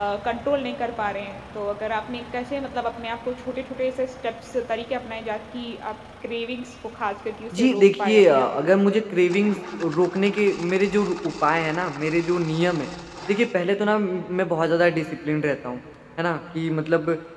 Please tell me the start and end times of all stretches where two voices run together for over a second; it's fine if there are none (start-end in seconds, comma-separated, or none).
7.5-8.8